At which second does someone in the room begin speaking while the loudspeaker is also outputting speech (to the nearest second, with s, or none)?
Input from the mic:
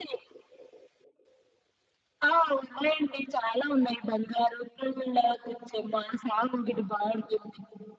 none